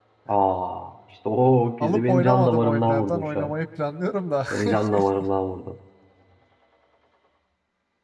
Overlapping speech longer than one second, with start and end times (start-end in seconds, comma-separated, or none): 1.8-3.5